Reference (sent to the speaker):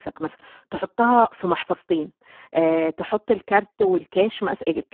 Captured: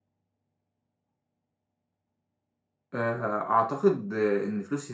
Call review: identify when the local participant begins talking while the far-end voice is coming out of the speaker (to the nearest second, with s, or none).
3 s